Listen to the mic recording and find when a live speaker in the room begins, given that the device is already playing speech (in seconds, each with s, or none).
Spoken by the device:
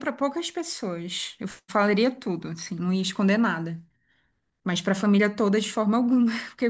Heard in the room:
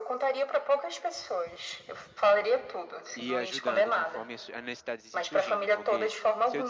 3.1 s